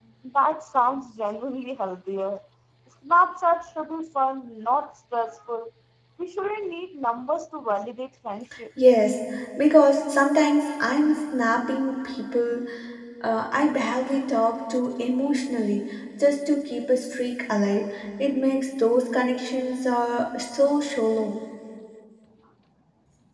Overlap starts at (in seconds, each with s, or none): none